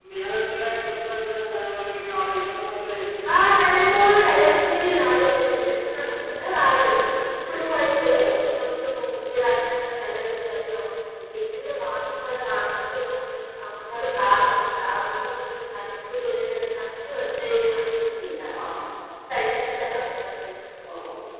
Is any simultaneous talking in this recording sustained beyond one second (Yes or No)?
No